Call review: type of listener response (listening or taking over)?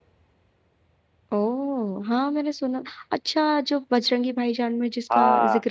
taking over